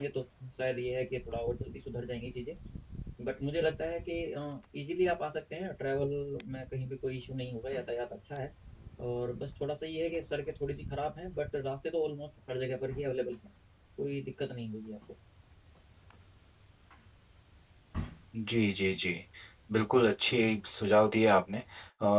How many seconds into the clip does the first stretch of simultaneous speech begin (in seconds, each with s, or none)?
none